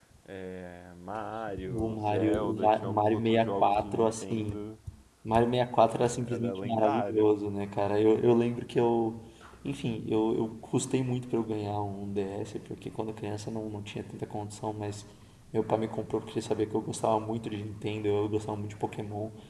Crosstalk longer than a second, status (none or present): present